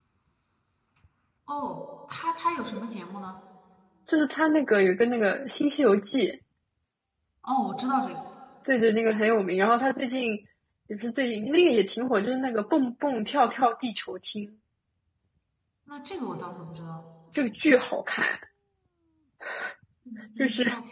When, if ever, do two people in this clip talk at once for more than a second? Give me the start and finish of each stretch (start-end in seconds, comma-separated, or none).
none